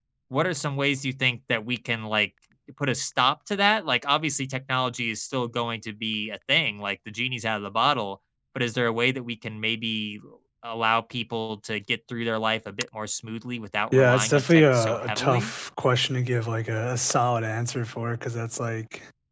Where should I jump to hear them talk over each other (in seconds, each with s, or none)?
13.9 s